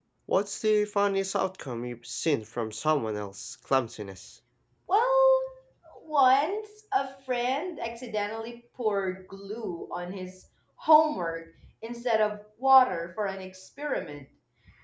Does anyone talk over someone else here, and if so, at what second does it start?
none

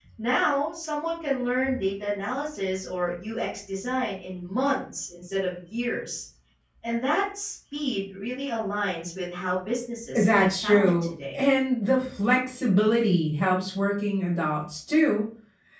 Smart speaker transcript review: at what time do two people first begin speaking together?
10 s

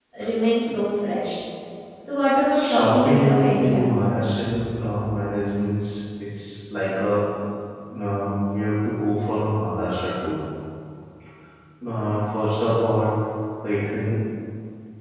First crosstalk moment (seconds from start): 3 s

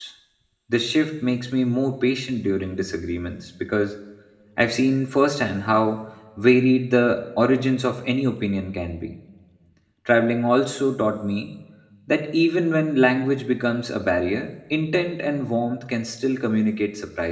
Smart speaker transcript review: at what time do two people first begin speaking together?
none

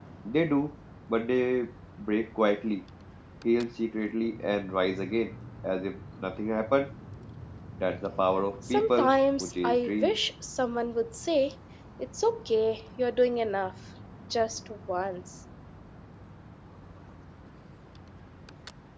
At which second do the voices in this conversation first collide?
9 s

